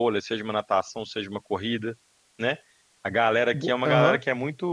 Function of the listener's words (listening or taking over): listening